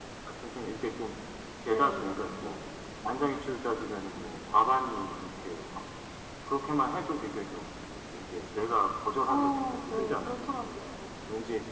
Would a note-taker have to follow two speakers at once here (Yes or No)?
Yes